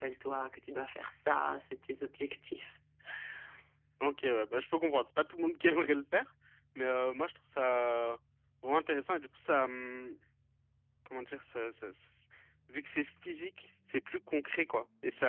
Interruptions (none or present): none